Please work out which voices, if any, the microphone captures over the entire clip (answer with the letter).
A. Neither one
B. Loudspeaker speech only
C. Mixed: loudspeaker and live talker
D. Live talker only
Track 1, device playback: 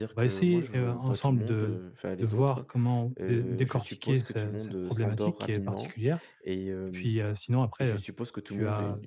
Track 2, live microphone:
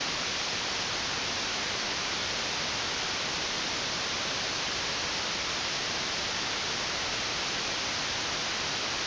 A